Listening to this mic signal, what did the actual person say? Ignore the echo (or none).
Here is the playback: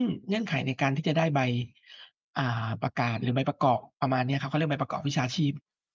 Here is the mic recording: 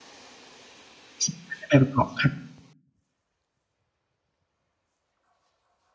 สามารถได้ไปประกอบคัด